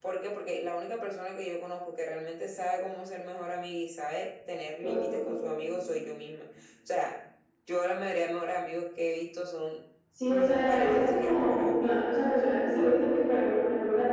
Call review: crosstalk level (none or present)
present